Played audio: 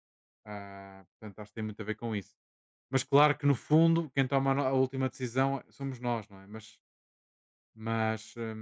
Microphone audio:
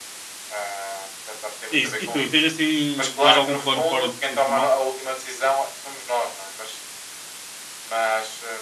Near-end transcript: É isso. E tu, tens assim mais algum plano fora de profissional?

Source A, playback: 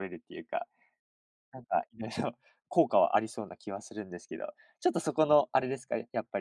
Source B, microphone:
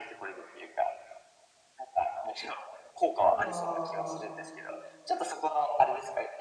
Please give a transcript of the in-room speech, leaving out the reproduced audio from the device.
あとは、

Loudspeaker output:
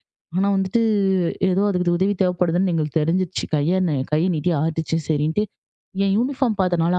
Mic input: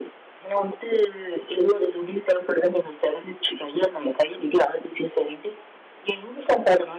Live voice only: none

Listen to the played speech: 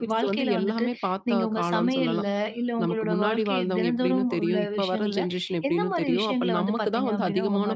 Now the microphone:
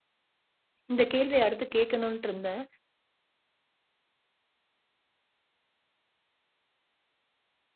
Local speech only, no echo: இந்த கேள்விய அடுத்து கேட்கணுன்ட்டு இருந்தேன்.

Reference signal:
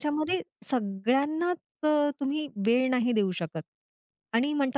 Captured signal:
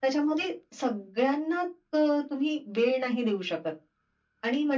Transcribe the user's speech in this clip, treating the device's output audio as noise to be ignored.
none

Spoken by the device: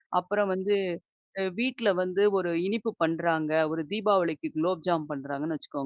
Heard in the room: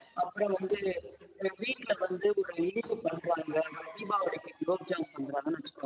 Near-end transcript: none

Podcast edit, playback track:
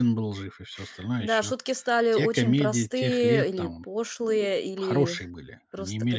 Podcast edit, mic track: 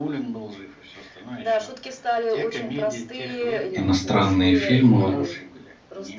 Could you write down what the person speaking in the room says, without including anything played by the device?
Иностранные фильмы, вот

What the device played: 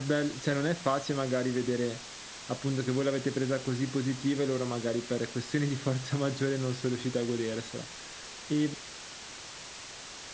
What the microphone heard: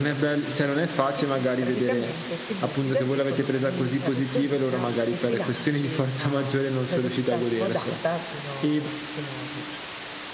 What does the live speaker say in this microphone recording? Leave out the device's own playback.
e tu praticamente ti butti da lì con una mini carrucolina e ti lanci a, mhmm, velocità smodata fino fino giù.

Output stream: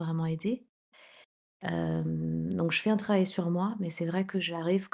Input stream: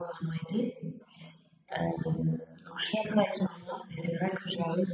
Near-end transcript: none

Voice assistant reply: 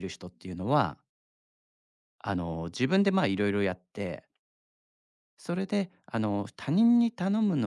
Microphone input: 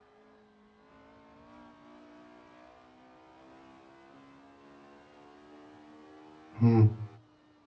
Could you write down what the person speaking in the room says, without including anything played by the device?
うん。

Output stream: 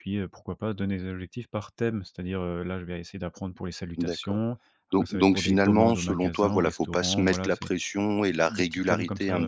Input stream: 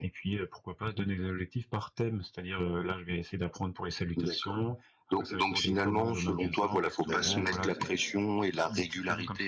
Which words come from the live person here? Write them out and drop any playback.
d'acc

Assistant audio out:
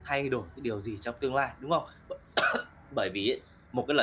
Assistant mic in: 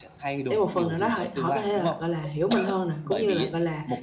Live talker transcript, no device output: để một phần nào đó họ họ có thể là, gọi là, hiểu mình hơn nè, cũng như là, gọi là,

